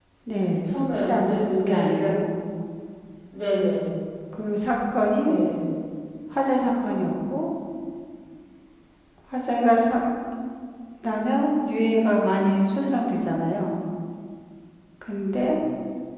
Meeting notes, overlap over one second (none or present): present